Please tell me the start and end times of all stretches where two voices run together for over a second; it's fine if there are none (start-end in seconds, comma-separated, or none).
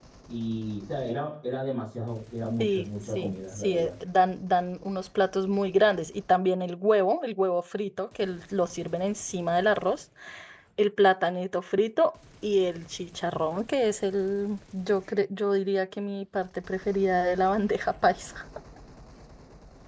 2.6-3.9